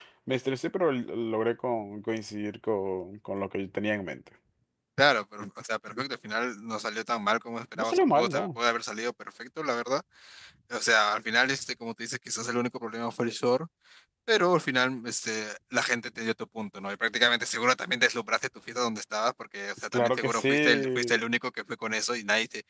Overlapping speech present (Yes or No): Yes